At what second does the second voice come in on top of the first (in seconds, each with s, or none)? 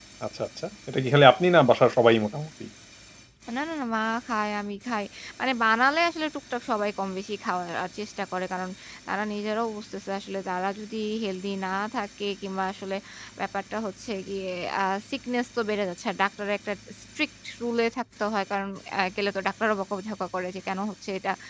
none